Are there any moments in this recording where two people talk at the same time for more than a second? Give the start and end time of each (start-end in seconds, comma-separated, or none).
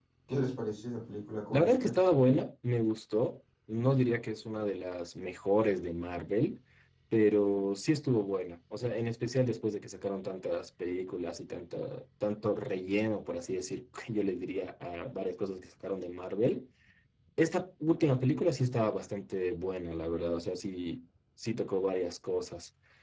none